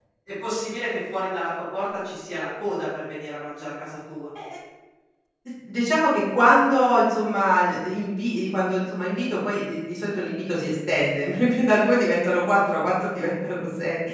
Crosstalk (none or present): none